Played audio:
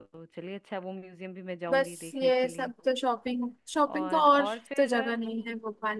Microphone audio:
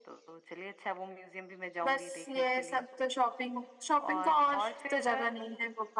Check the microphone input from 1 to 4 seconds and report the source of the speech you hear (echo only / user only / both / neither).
echo only